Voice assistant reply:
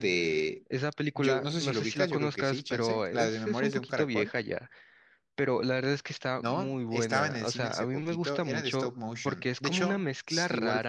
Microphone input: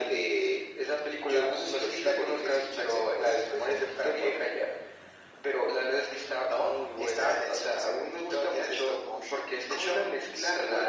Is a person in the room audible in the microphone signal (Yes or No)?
No